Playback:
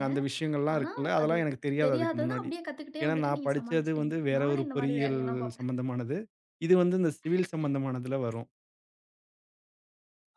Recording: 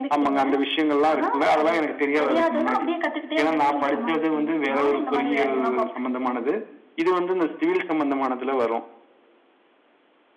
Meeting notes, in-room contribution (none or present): none